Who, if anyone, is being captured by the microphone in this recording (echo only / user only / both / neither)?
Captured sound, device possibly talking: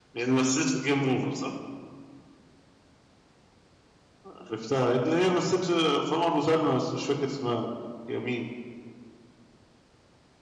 echo only